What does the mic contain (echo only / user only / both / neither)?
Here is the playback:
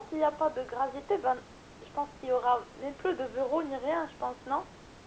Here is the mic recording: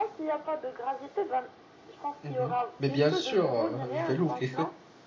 both